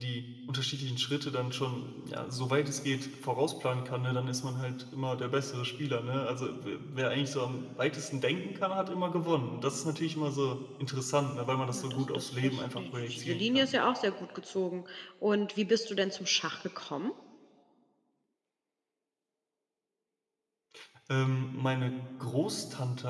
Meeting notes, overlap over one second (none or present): present